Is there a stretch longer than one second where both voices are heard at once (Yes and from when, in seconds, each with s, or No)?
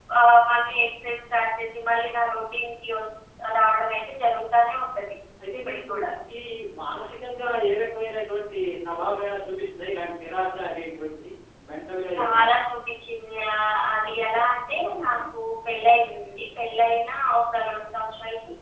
No